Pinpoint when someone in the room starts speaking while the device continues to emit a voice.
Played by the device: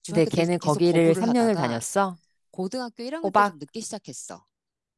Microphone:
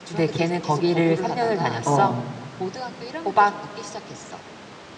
2 s

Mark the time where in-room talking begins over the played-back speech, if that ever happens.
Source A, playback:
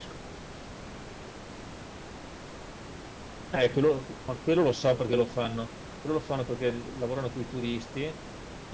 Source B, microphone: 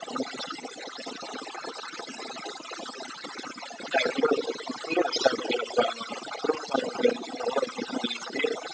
none

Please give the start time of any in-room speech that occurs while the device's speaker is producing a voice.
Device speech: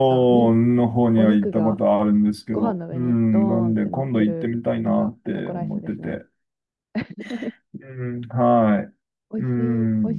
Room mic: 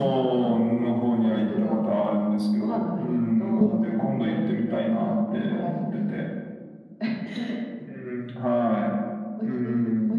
4 s

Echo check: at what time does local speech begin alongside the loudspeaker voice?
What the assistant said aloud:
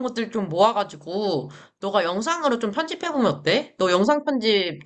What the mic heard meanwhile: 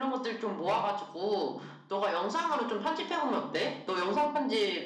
none

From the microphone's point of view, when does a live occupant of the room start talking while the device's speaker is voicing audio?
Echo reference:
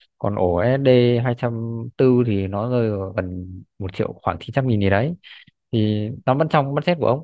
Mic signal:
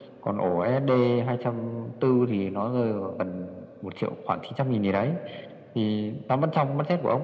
none

